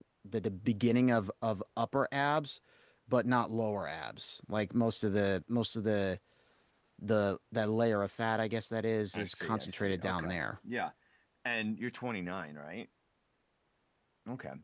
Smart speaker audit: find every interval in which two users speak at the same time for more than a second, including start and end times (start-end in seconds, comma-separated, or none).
9.1-10.4